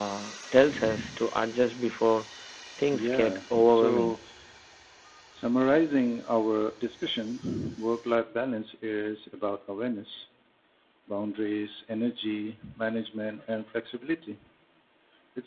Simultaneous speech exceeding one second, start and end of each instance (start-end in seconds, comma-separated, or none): 2.9-4.2